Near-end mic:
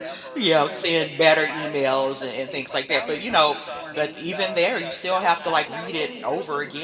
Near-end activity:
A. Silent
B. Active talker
B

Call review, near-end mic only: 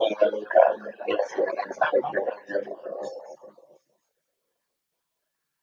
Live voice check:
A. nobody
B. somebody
A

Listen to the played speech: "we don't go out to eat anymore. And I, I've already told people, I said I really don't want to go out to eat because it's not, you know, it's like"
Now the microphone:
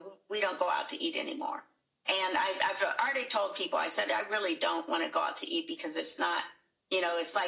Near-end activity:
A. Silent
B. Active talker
A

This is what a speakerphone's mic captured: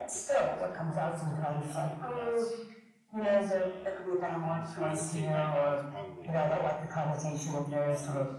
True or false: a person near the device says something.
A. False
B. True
B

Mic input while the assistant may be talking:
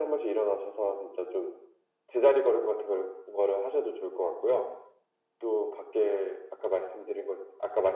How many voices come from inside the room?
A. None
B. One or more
A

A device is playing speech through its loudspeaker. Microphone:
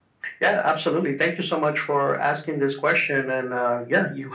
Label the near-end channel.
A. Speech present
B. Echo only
B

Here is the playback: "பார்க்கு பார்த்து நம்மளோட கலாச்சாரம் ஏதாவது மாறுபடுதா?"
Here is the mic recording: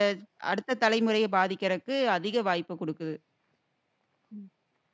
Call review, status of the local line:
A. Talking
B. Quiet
A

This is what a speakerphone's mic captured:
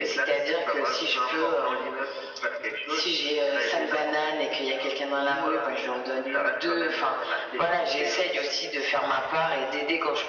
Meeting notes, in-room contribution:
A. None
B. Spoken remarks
A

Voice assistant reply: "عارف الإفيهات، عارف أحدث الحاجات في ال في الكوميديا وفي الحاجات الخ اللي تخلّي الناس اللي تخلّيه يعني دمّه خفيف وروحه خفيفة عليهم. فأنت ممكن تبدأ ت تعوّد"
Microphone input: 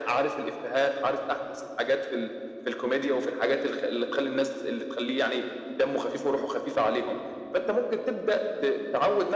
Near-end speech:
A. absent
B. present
A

